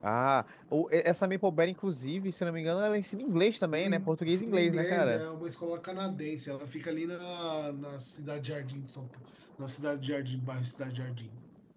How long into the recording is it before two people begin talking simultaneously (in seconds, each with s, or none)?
3.7 s